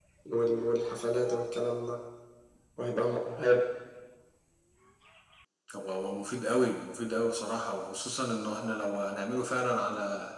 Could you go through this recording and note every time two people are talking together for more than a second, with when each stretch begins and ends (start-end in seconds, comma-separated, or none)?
none